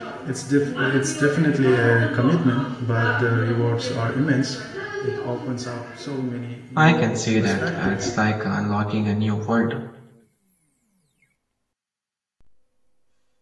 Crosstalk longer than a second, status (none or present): present